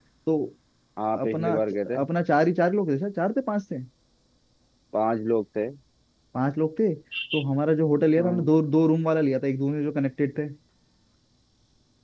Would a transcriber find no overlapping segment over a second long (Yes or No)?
Yes